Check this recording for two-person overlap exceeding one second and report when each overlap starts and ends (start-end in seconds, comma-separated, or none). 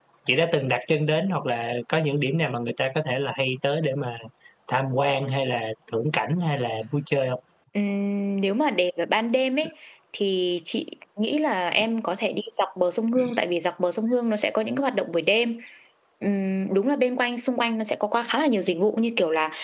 none